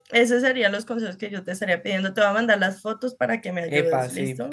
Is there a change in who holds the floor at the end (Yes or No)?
Yes